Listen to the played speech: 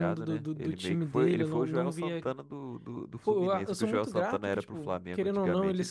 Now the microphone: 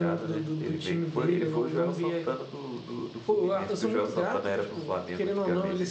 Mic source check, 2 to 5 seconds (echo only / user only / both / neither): echo only